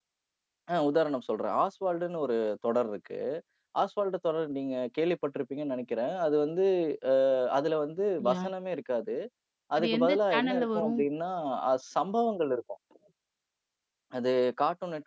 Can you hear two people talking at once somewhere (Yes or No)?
Yes